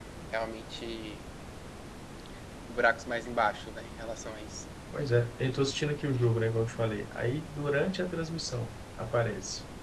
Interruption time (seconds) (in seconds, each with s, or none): none